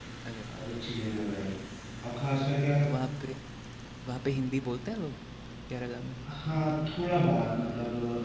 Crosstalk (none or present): none